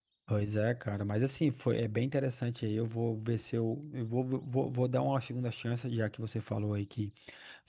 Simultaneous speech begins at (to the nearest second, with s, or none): none